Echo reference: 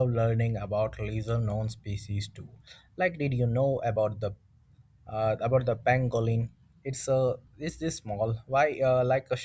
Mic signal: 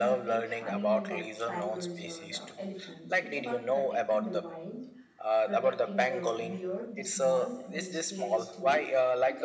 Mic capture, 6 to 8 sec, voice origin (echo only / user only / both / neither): both